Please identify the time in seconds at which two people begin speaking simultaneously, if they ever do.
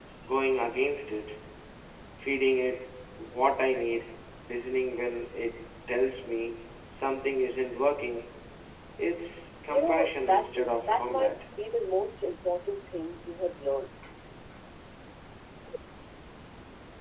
10 s

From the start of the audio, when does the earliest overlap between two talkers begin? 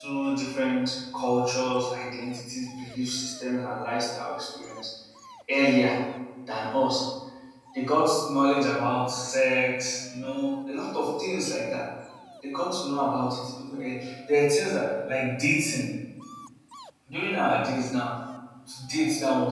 none

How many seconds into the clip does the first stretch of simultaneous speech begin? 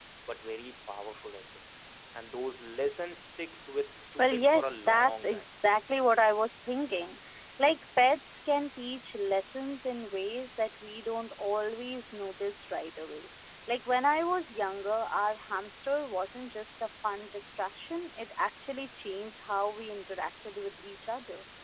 4 s

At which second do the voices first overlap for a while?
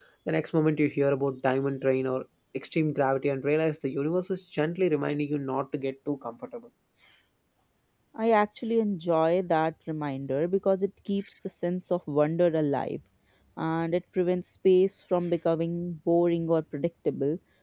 none

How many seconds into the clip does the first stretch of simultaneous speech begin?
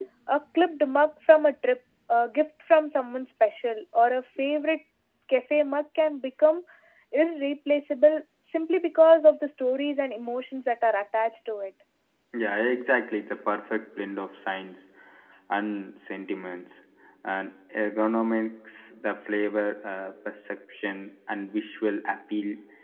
none

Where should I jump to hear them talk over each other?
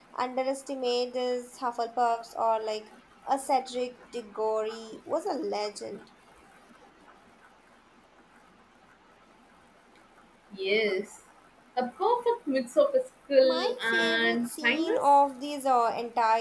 13 s

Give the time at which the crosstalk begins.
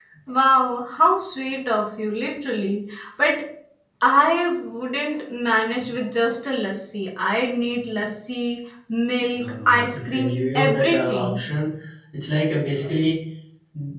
9 s

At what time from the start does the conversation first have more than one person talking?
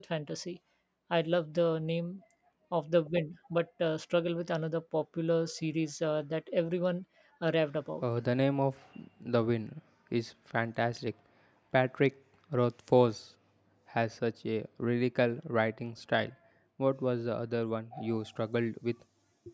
none

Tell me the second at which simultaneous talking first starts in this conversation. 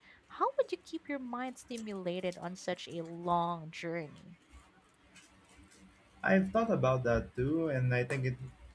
none

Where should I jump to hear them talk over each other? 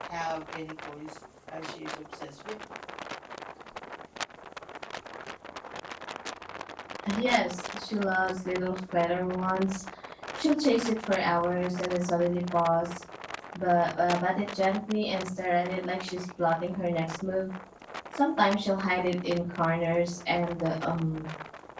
none

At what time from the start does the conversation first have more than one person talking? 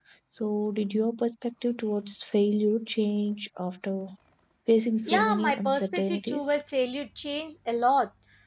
5 s

